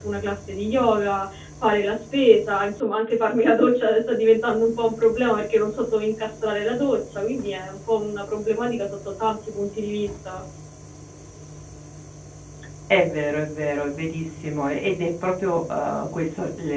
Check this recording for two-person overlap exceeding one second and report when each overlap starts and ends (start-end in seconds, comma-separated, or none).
none